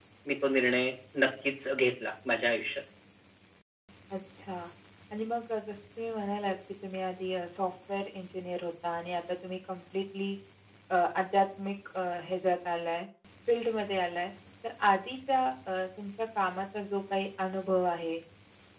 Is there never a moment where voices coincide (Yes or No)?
Yes